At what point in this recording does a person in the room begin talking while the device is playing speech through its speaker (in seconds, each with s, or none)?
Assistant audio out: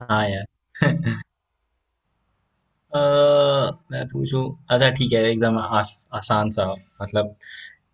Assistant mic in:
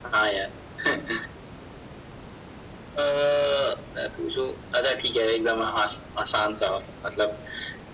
none